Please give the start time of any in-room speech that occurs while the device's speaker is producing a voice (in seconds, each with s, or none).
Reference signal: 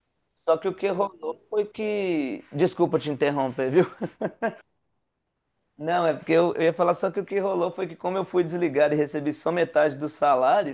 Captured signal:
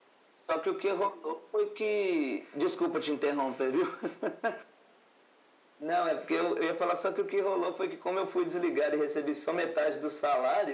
none